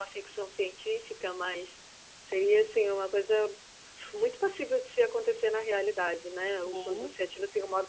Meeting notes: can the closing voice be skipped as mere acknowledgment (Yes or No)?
Yes